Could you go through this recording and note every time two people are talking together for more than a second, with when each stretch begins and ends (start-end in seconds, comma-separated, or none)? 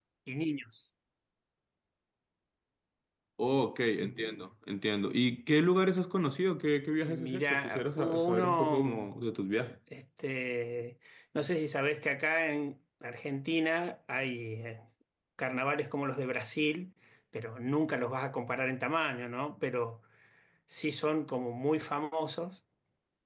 7.1-9.1